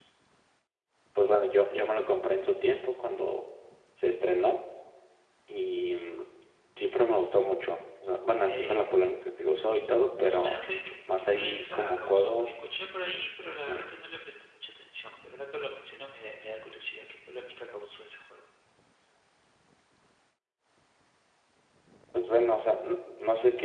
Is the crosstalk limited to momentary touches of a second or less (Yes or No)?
No